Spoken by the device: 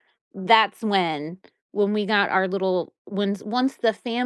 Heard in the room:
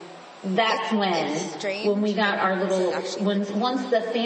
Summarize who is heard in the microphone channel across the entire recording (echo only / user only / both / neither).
both